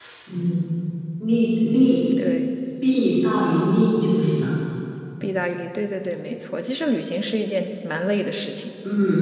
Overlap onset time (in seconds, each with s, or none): none